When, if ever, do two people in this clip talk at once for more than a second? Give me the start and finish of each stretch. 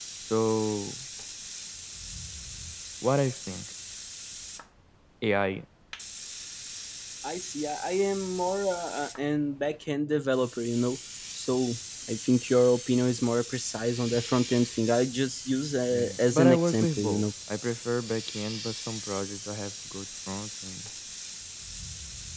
15.9-17.2

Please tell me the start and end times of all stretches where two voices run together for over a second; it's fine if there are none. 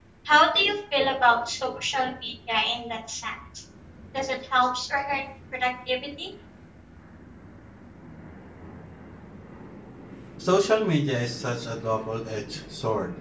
none

